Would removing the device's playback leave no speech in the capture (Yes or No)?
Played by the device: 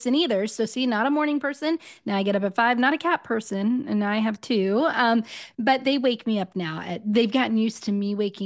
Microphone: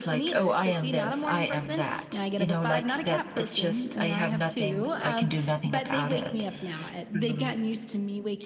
No